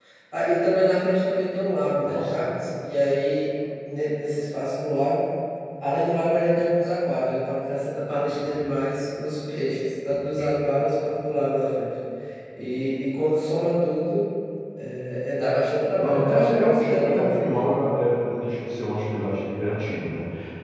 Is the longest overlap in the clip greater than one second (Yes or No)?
Yes